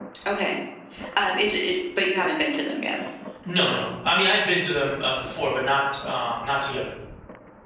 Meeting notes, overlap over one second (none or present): none